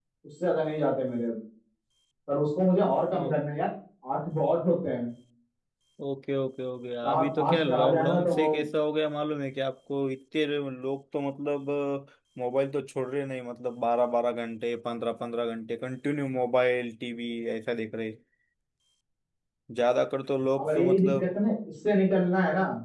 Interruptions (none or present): present